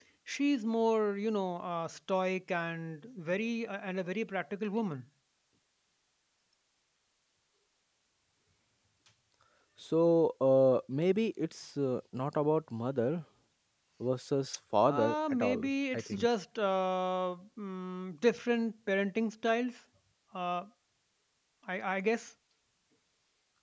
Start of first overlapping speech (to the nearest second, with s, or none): 15 s